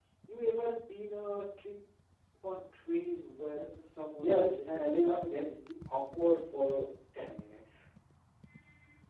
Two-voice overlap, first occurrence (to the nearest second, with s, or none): 4 s